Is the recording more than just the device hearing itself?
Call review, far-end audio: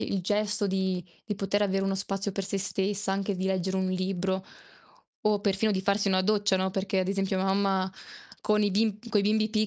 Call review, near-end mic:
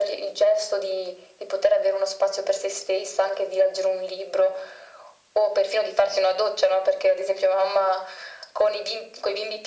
No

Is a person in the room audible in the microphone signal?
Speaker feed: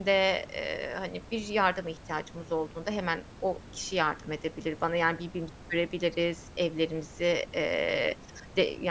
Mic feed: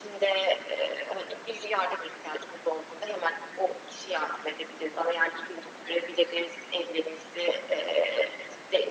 No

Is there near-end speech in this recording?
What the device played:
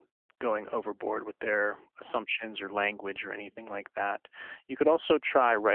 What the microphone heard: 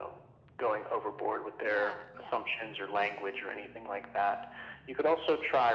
Yes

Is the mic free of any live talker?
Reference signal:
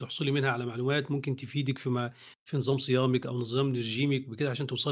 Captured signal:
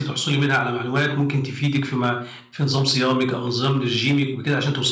Yes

